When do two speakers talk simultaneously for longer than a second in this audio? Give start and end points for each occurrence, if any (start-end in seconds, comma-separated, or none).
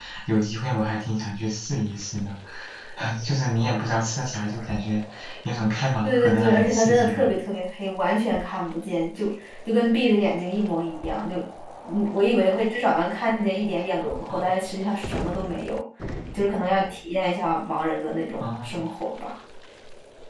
6.0-7.3